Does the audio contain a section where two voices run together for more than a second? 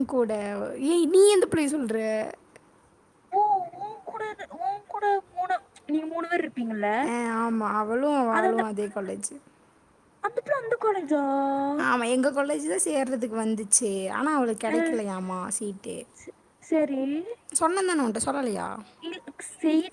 No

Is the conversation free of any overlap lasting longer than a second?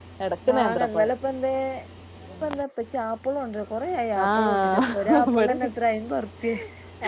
No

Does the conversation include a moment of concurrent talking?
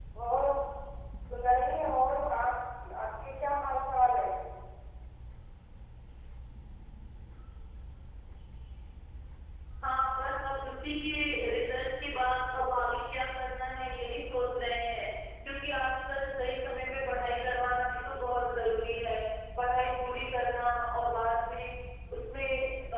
No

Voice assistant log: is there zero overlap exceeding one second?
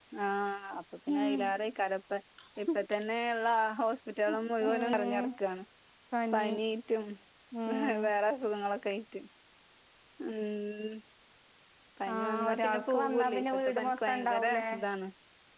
No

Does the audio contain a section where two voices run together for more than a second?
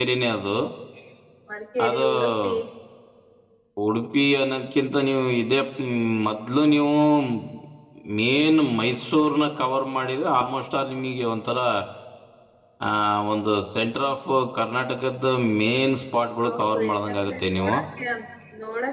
Yes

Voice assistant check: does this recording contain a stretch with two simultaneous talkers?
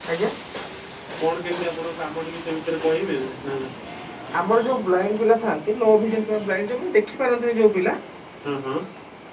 No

